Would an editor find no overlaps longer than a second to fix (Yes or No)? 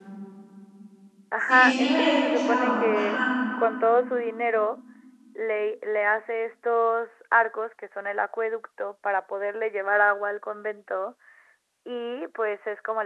No